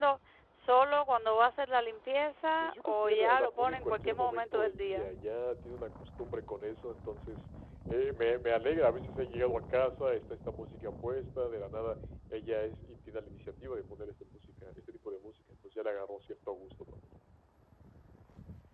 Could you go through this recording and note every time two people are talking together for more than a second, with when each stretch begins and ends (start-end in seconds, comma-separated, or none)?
2.6-5.1